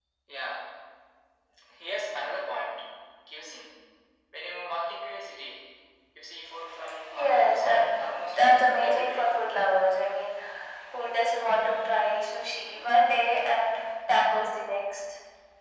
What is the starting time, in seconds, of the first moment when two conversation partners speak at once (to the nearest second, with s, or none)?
7 s